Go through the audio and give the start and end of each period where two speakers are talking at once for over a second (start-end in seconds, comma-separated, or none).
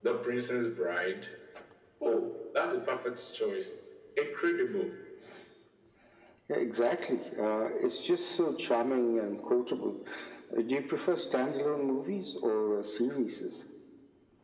none